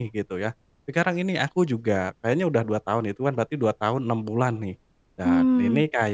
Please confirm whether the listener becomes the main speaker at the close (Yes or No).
No